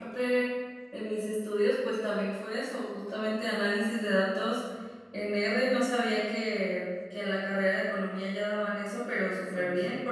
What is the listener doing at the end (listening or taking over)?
listening